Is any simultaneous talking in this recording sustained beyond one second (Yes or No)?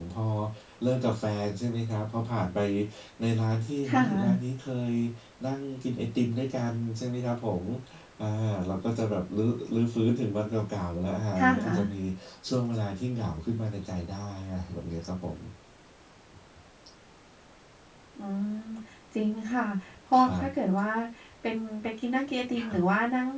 No